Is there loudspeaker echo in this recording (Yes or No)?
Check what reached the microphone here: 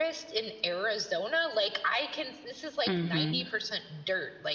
Yes